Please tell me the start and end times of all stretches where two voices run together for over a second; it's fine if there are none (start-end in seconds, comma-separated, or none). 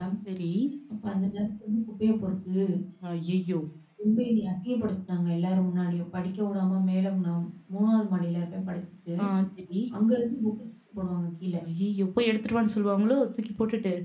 none